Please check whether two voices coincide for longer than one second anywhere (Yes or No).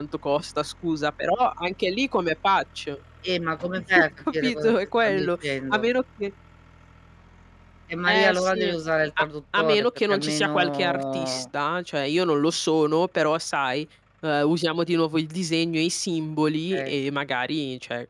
Yes